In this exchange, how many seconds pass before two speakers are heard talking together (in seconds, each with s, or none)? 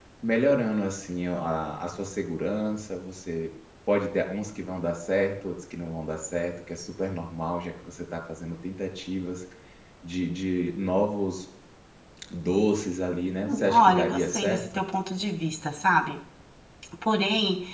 13.4 s